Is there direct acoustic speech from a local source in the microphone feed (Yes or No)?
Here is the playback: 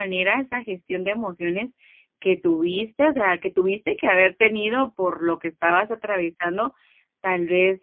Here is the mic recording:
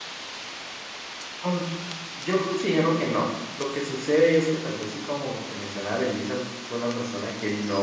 Yes